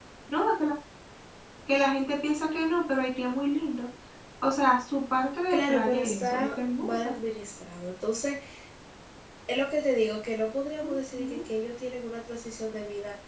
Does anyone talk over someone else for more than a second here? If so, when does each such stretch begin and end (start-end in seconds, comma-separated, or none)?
5.5-7.1